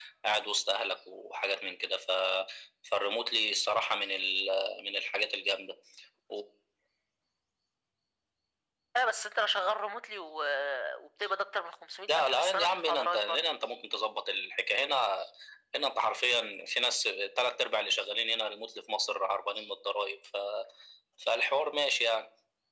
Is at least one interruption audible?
Yes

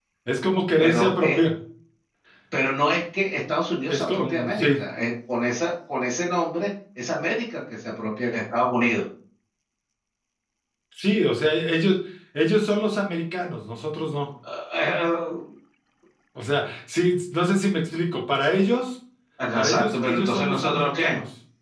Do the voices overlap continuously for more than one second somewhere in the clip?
Yes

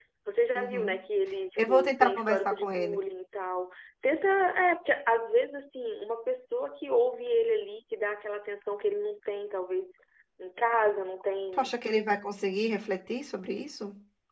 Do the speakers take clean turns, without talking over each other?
No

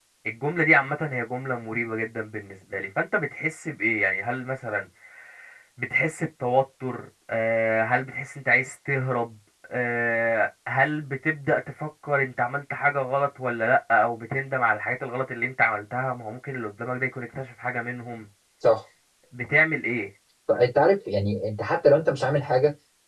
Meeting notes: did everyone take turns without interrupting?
Yes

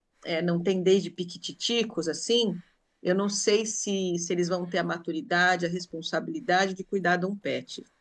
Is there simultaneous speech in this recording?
No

